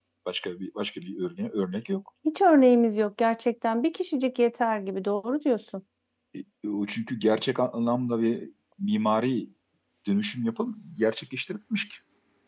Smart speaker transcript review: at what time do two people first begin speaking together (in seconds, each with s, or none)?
none